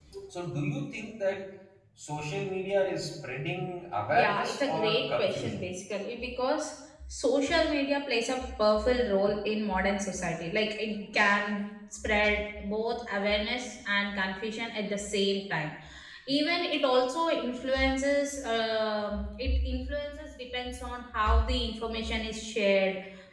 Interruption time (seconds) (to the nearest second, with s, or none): 4 s